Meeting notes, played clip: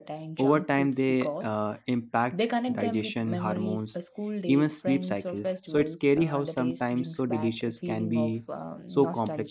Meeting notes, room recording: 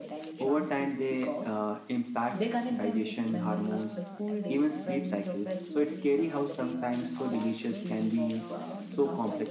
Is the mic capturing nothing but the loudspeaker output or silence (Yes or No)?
No